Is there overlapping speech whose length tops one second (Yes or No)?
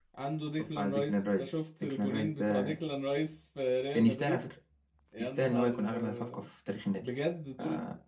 Yes